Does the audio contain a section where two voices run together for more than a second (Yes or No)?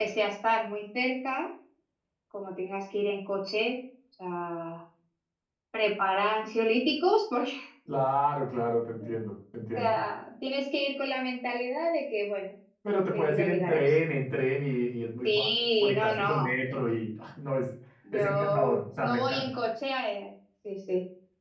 Yes